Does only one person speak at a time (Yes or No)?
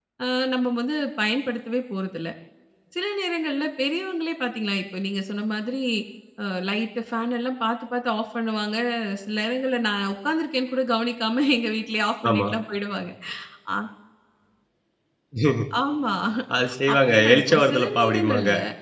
No